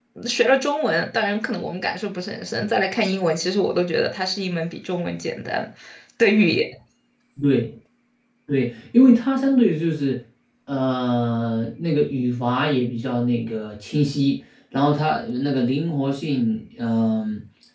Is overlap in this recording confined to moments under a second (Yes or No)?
Yes